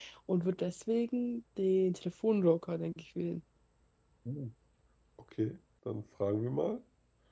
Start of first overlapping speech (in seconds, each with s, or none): none